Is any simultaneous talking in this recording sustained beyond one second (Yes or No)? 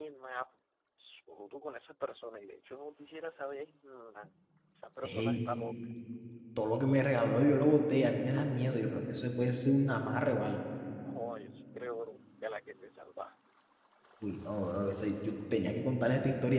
No